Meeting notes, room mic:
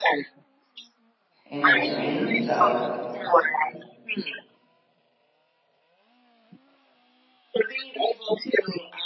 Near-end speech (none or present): present